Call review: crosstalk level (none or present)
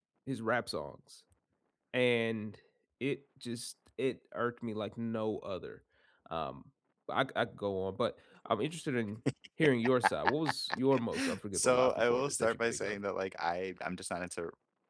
present